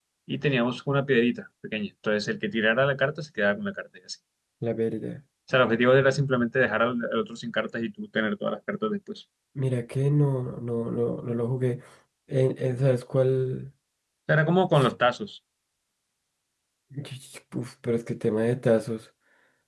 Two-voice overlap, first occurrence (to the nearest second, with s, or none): none